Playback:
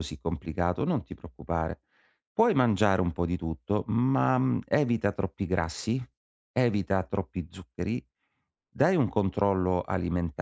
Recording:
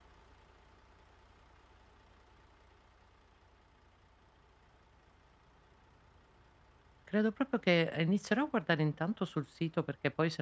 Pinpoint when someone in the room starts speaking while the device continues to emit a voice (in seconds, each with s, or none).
7.0 s